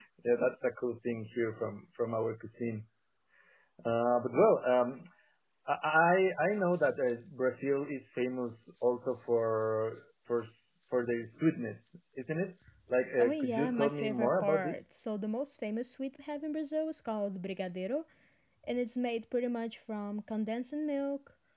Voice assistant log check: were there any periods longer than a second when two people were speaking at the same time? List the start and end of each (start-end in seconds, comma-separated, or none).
13.2-14.8